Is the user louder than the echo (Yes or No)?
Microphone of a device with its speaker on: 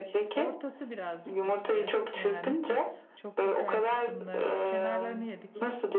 No